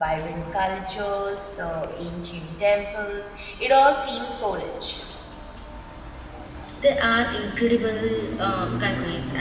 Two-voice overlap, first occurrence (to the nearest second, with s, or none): none